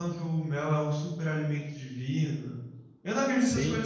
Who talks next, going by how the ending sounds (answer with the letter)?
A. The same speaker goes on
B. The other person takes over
A